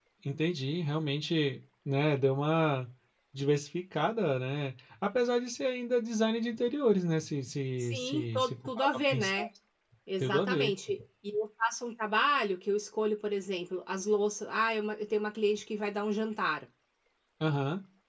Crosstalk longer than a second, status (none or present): present